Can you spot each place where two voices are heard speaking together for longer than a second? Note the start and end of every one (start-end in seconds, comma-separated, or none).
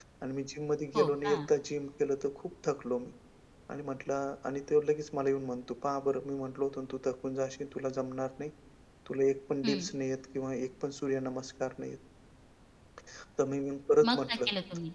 none